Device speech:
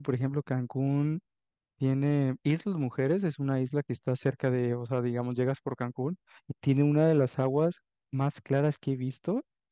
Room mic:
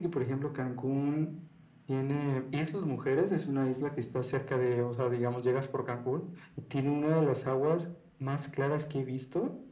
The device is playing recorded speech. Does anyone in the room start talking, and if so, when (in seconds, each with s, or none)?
none